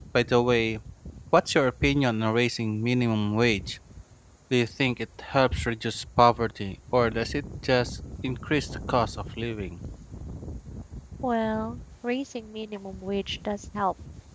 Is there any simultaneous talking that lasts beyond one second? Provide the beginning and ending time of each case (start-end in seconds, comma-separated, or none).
none